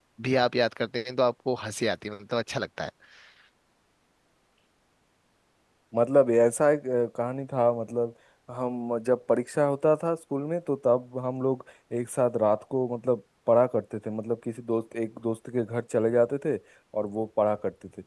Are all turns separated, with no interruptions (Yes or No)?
Yes